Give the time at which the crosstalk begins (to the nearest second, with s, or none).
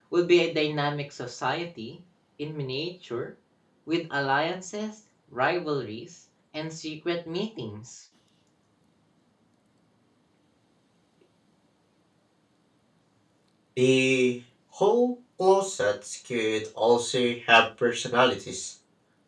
none